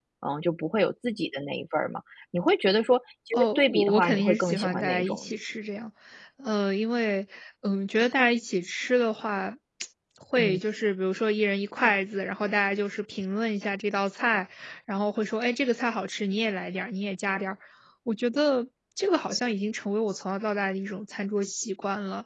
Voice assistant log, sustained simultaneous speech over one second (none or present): present